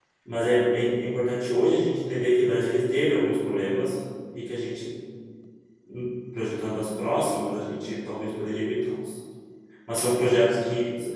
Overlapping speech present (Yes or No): No